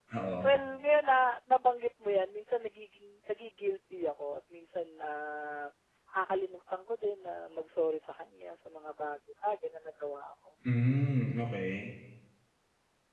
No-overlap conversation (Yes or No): Yes